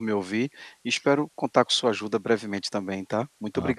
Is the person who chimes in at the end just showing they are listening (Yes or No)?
No